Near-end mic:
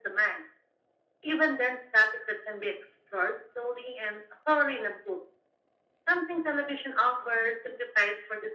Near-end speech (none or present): none